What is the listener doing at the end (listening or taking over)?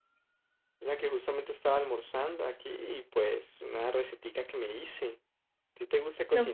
taking over